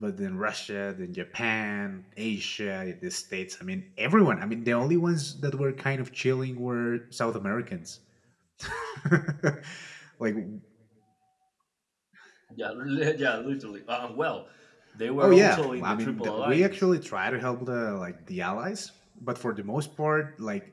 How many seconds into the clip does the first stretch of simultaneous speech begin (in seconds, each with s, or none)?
15.2 s